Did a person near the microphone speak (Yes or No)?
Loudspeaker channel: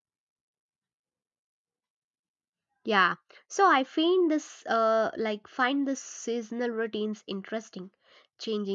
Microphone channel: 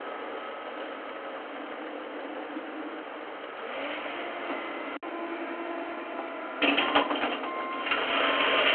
No